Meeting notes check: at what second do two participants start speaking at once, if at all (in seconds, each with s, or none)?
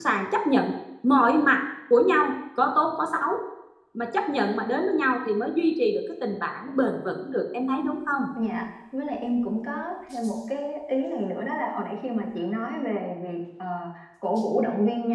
none